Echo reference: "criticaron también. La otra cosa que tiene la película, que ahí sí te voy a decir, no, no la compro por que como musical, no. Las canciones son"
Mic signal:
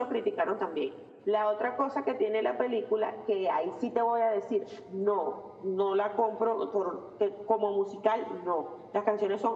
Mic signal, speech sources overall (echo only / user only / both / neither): echo only